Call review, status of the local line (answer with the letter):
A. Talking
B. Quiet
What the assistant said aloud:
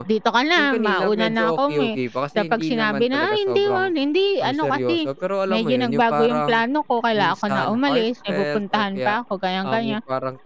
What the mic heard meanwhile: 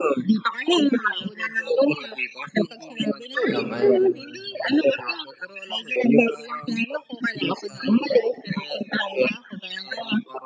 A